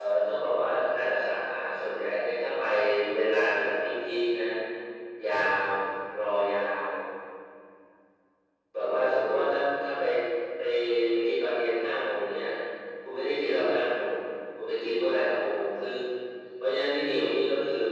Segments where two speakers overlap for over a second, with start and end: none

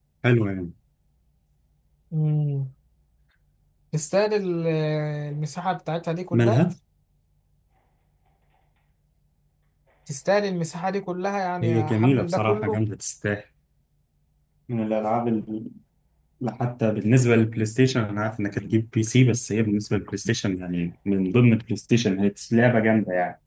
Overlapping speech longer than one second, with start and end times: 11.6-12.8

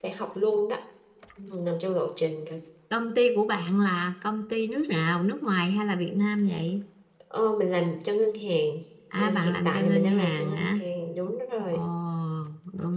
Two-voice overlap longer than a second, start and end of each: 9.2-10.7

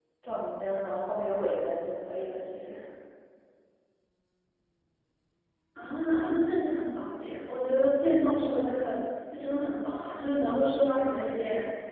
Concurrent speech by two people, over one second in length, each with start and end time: none

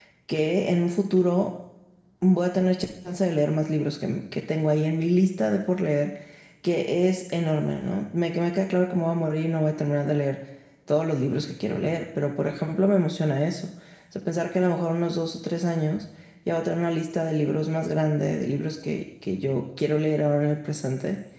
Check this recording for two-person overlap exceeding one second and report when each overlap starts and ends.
none

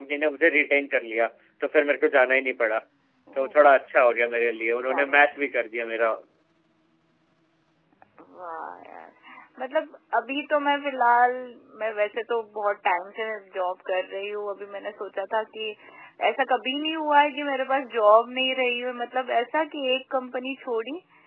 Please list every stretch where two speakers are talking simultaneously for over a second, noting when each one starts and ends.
none

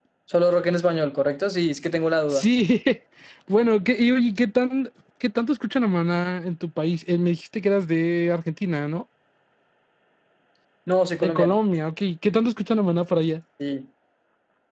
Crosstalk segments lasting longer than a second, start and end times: none

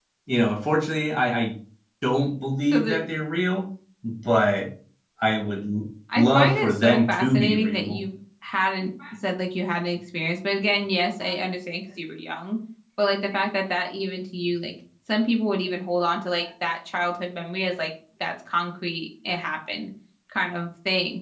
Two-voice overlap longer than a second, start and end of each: 6.2-8.0

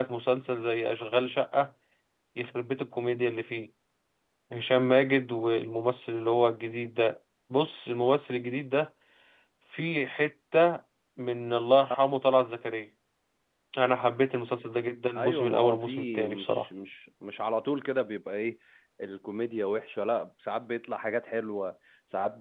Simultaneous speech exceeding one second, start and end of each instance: 15.2-16.7

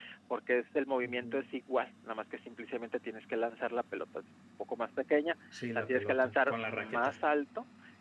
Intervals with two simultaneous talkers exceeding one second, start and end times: 5.5-7.2

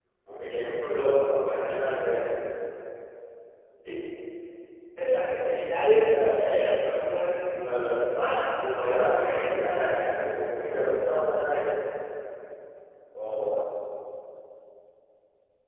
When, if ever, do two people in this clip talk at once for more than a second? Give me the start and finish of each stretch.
8.6-9.9

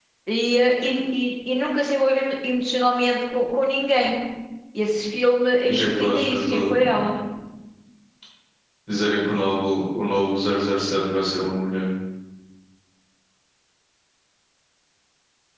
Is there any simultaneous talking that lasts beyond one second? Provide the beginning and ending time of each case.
5.7-7.1

